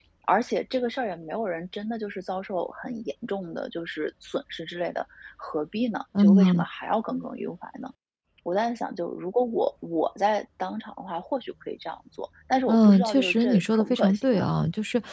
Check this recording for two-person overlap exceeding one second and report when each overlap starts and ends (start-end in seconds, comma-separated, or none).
12.7-14.4